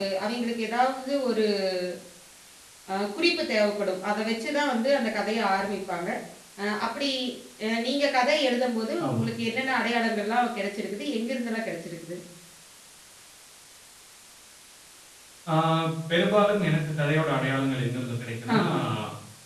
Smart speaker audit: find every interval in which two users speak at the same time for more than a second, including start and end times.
none

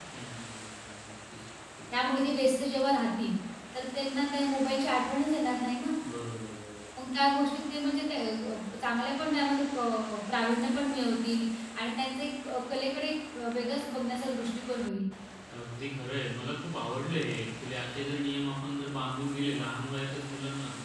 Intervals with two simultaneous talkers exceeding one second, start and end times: none

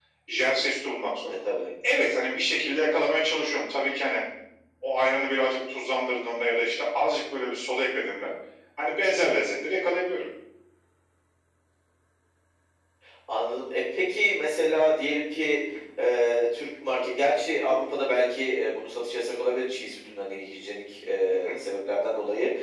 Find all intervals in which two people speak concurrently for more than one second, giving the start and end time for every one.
none

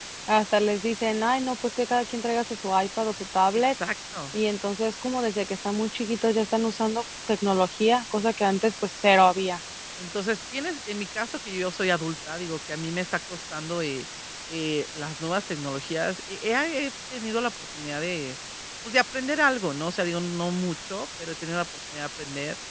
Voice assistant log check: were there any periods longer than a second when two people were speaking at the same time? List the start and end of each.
none

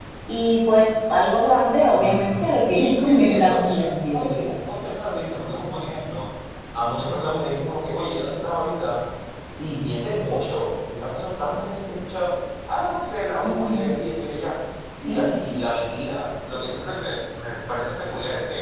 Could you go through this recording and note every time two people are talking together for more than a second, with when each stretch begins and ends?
3.0-4.6

